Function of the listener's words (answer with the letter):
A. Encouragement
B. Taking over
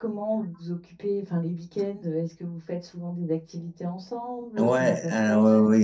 B